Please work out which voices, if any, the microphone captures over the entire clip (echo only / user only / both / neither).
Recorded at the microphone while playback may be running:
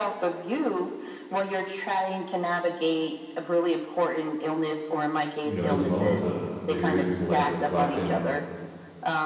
both